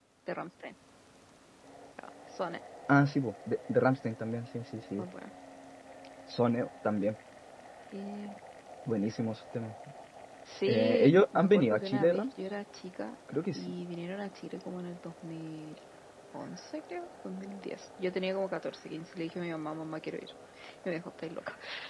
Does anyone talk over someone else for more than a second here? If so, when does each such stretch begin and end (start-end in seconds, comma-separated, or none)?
10.7-12.2